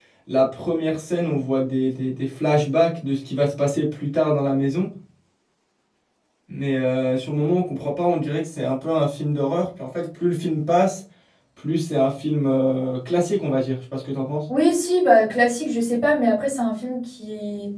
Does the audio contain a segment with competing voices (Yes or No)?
No